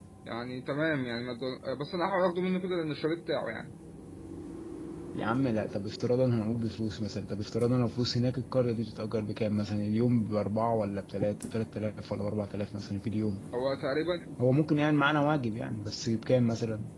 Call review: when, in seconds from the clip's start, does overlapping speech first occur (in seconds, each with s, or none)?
none